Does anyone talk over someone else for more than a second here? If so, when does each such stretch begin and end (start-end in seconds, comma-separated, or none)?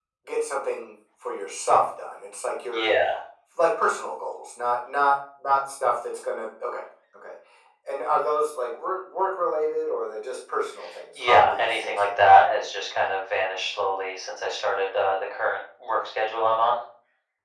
11.1-12.4